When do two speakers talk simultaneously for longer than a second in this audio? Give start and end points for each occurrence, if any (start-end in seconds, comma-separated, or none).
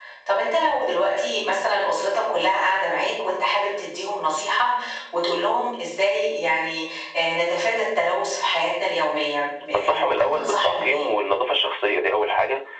9.8-11.0